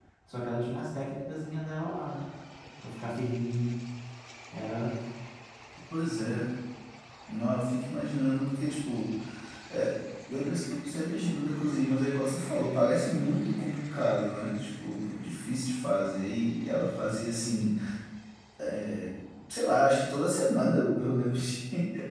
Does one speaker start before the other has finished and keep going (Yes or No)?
No